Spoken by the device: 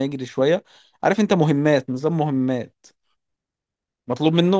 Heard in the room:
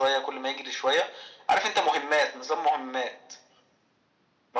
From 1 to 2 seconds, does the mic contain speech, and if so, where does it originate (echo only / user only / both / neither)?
echo only